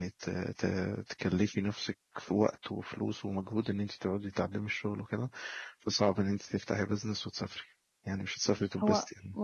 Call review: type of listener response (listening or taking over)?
taking over